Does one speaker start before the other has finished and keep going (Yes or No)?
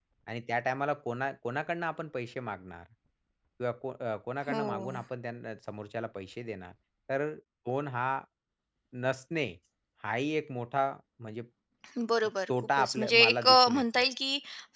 Yes